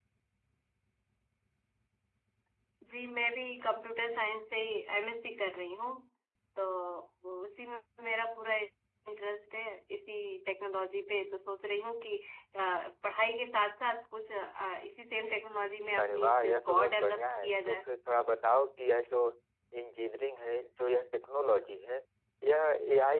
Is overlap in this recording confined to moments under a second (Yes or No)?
No